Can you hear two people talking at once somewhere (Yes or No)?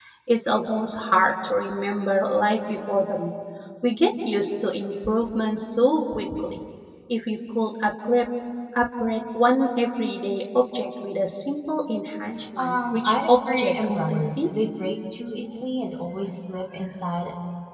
Yes